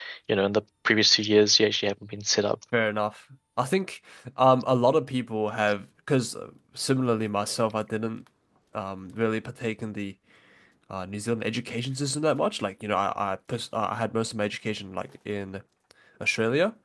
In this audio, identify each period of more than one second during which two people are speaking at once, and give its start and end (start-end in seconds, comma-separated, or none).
none